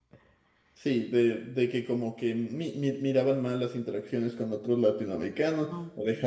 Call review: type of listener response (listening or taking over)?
listening